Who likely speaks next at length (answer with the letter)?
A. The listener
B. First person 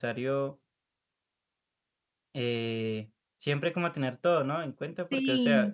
B